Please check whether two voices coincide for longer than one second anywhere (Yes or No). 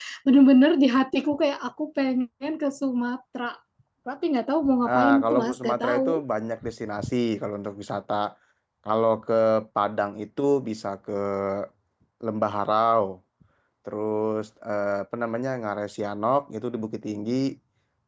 Yes